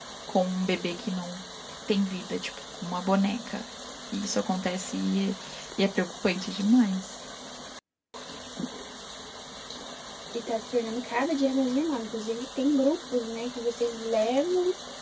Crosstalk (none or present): none